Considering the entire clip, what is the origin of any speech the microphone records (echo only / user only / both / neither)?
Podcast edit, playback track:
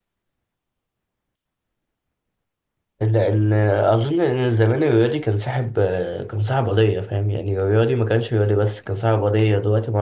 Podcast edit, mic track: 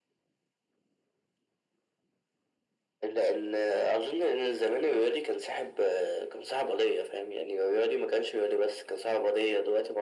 echo only